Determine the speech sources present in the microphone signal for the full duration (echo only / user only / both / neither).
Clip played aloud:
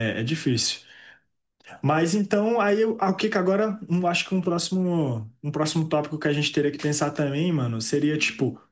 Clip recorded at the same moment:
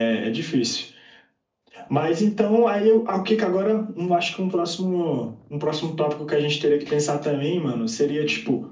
echo only